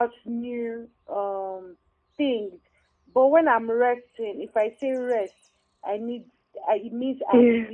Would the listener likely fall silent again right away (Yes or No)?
Yes